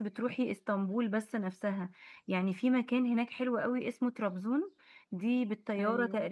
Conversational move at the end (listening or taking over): listening